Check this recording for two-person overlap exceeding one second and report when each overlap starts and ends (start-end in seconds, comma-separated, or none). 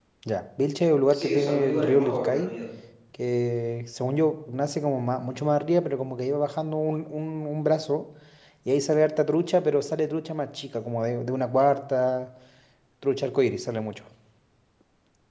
1.1-2.5